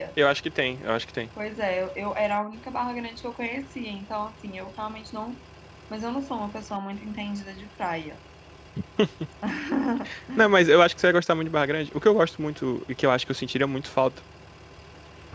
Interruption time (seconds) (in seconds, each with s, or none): none